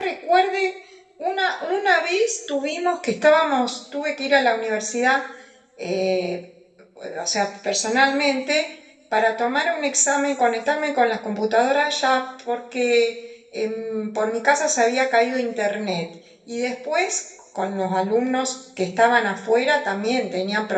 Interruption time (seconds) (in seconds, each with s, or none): none